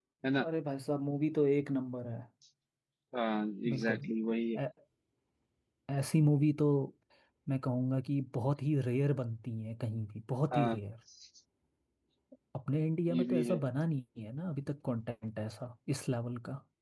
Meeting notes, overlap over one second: none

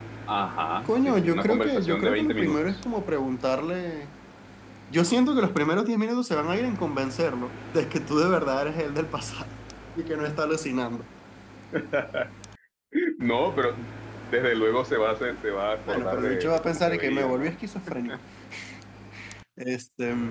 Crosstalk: present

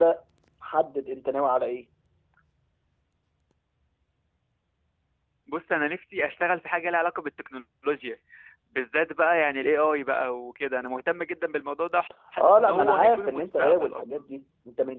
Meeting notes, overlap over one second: present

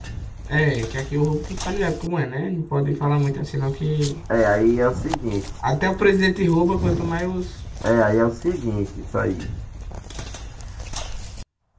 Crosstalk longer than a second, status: none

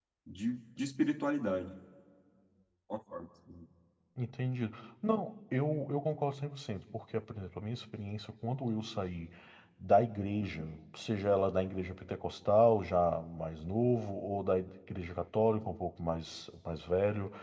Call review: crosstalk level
none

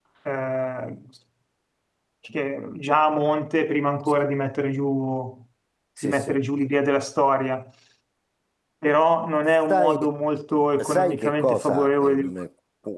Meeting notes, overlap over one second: present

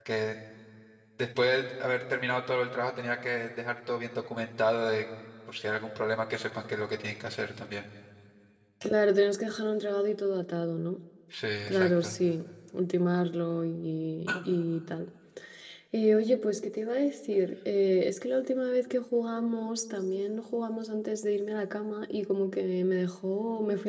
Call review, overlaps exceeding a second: none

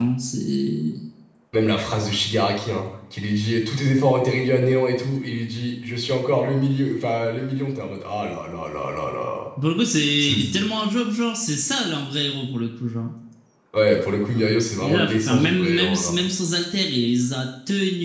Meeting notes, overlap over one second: present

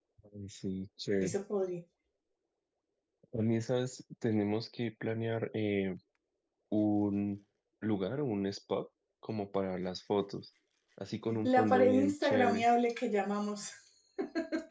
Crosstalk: present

